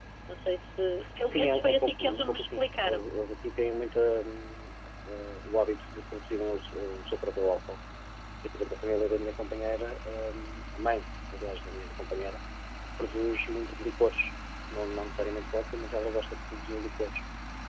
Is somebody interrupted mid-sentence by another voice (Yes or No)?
Yes